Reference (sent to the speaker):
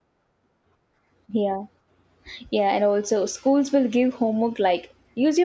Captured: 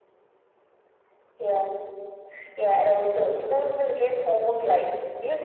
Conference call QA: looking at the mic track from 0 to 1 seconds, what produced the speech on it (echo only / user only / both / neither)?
neither